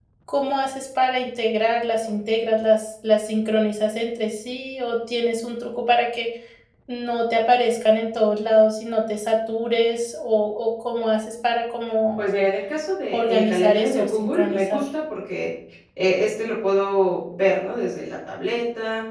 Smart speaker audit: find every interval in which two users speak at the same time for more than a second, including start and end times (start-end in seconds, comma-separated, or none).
13.1-14.8